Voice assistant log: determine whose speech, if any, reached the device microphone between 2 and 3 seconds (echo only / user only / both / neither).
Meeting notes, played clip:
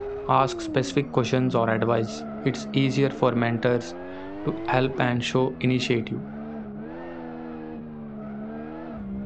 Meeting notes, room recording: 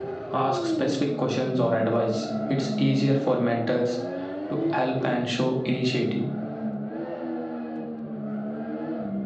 echo only